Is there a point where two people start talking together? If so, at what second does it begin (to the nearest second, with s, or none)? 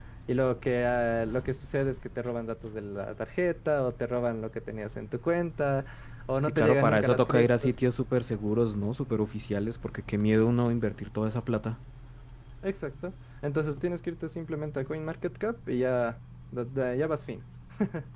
6 s